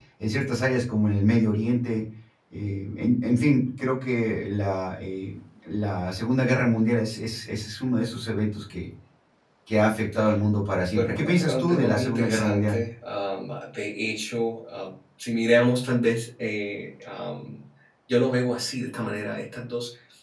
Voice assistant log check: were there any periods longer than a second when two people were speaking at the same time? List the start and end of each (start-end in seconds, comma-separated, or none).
10.9-12.8